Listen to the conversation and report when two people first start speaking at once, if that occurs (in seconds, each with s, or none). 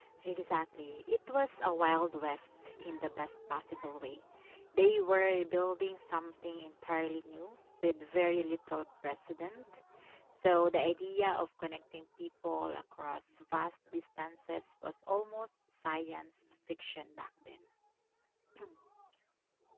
none